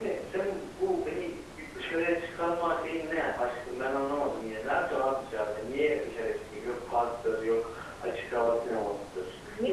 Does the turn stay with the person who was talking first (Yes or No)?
No